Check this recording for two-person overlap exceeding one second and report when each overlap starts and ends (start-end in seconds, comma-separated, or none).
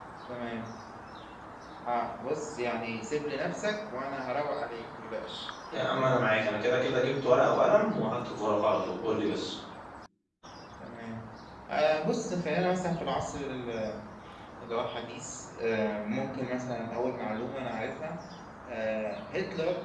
none